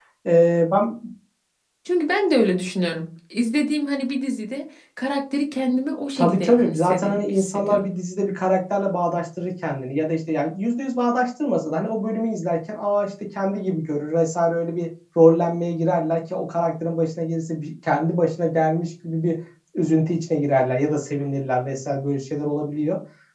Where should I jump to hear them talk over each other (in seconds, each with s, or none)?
6.2 s